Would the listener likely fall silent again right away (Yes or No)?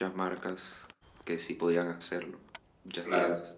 No